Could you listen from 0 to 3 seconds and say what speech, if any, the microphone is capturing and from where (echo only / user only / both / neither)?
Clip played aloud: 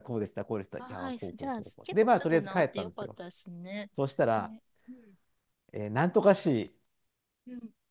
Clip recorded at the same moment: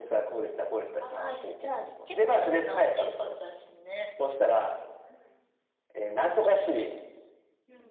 echo only